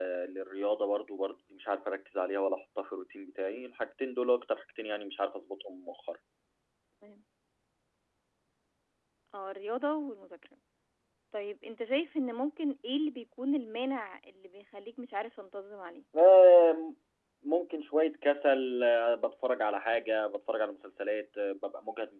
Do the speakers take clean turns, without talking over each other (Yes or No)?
Yes